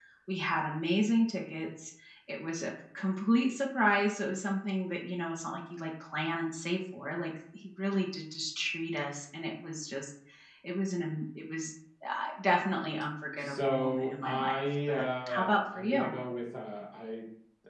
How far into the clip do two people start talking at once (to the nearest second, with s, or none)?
13 s